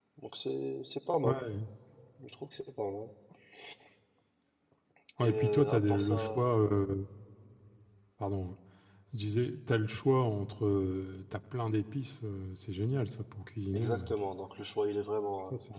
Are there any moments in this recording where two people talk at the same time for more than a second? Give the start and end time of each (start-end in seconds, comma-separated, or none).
5.2-6.5